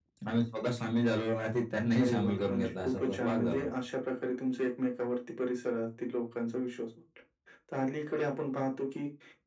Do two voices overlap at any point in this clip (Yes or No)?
Yes